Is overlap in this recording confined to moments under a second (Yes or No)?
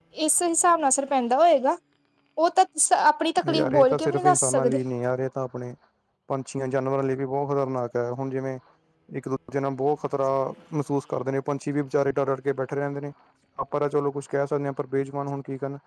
No